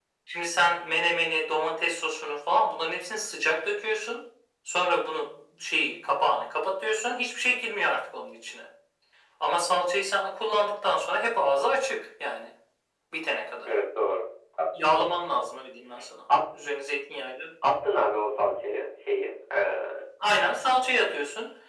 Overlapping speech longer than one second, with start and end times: none

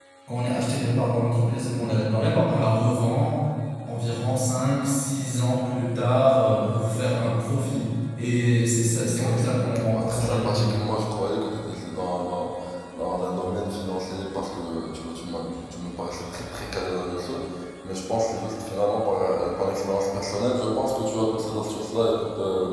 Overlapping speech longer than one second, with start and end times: 9.2-10.8

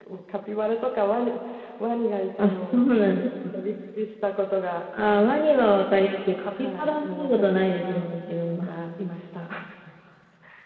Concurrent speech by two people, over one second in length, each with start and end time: 6.6-8.1

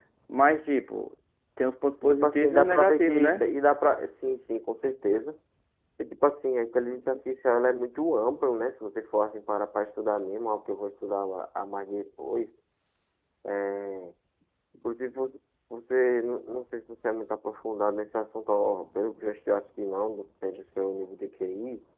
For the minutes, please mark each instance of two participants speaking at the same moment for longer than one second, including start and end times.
2.2-3.4

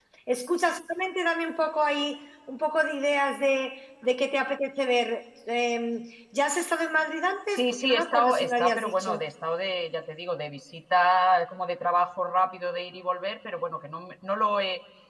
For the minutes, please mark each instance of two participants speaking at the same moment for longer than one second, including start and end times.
7.5-9.2

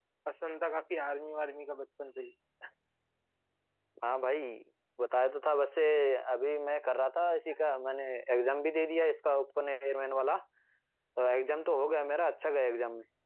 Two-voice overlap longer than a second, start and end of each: none

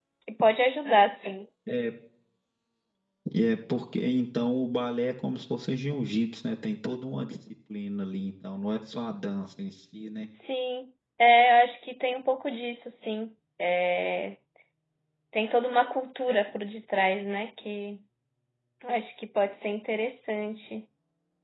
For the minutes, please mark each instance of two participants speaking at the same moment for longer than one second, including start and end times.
none

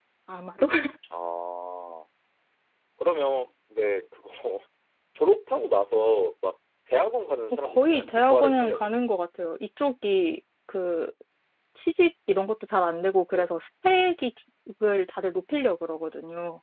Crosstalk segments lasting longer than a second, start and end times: 7.6-8.9

